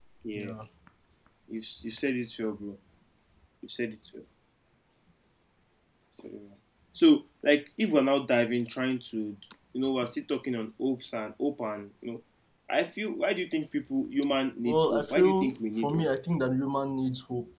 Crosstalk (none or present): present